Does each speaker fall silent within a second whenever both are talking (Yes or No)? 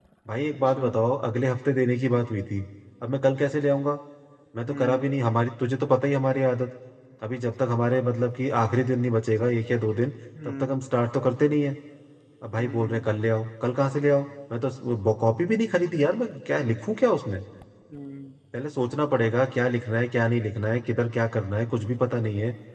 Yes